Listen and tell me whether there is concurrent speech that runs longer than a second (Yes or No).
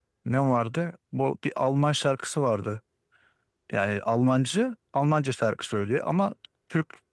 No